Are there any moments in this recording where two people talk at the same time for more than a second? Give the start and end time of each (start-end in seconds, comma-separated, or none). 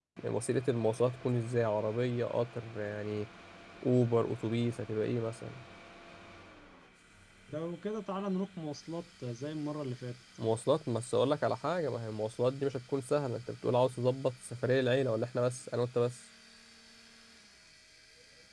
none